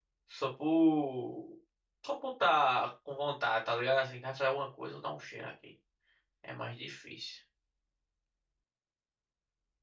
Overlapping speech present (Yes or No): No